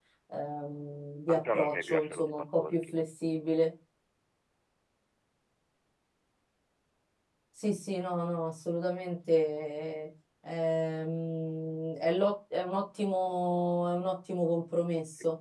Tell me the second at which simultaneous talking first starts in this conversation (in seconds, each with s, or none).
1.3 s